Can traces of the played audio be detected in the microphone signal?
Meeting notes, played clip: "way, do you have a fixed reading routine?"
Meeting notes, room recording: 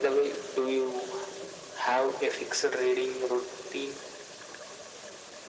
Yes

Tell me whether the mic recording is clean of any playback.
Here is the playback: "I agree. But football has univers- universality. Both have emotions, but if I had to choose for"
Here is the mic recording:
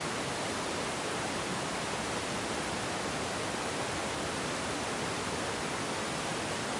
Yes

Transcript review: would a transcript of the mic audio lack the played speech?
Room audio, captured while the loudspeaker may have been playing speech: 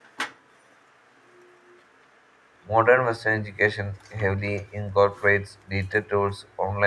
Yes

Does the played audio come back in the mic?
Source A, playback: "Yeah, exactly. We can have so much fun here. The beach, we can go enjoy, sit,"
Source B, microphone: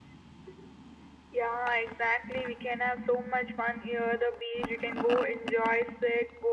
Yes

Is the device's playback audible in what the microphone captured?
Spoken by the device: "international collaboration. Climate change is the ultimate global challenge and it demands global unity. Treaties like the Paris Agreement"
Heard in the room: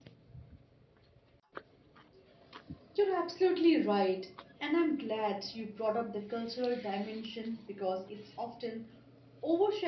No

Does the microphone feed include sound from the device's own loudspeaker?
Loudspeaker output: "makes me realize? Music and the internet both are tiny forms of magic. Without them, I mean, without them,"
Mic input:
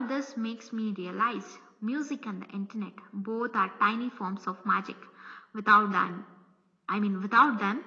Yes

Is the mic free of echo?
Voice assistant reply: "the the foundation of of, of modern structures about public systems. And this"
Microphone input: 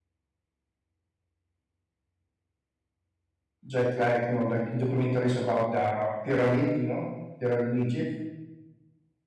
Yes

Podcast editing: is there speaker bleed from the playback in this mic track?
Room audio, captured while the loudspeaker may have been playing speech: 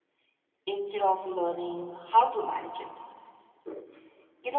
Yes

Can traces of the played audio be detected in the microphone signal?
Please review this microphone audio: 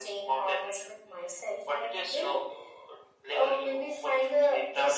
Yes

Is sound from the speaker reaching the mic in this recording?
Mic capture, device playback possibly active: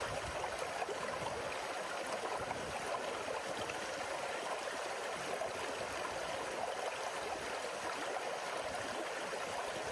No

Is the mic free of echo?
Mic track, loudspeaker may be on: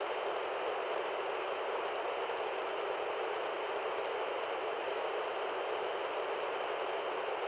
Yes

